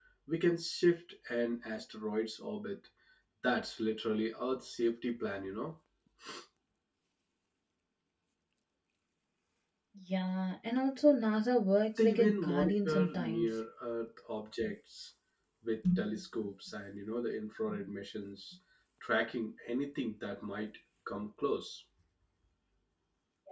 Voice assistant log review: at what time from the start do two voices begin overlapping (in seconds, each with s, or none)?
12.0 s